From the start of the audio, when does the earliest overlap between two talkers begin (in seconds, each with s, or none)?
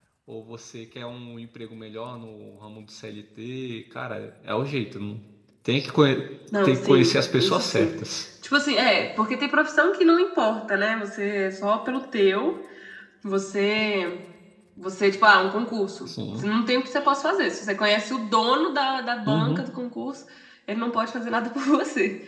6.6 s